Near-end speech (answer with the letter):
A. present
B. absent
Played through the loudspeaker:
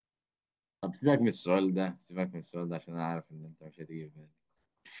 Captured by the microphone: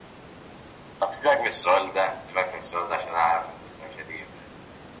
B